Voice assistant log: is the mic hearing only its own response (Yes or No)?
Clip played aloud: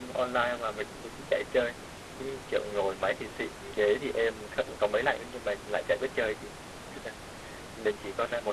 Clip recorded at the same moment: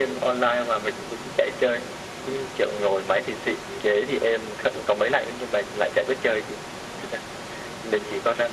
Yes